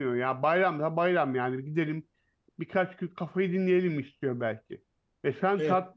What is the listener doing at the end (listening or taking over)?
listening